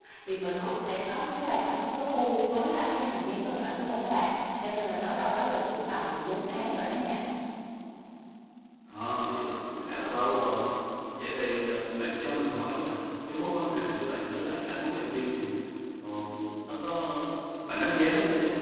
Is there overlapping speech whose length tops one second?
No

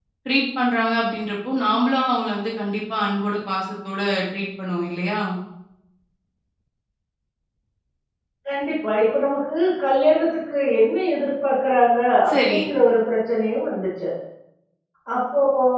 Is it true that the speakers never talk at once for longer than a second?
Yes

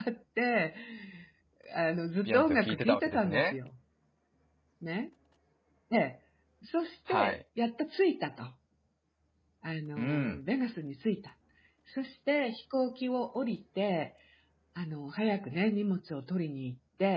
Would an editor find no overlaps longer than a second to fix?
No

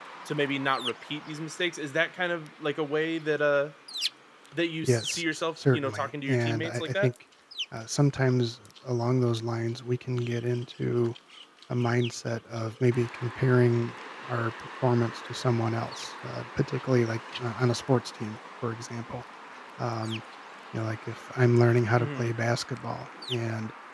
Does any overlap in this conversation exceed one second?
Yes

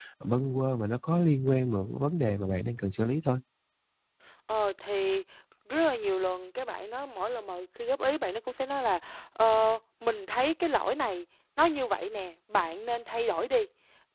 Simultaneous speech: No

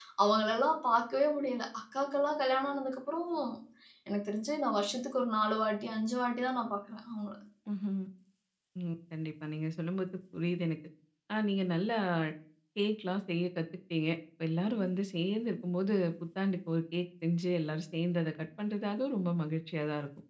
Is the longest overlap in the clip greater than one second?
No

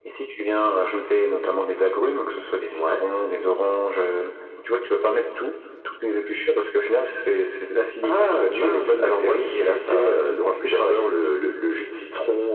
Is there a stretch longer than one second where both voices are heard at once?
Yes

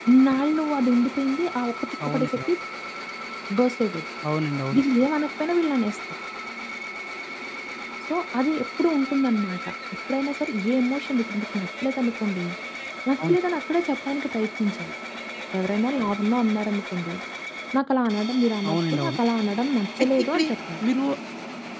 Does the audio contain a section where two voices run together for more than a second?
No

